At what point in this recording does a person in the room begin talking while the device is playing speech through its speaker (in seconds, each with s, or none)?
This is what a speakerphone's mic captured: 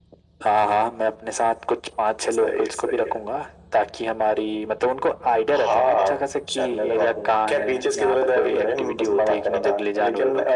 none